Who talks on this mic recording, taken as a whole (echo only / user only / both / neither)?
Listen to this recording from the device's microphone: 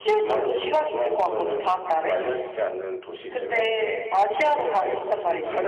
both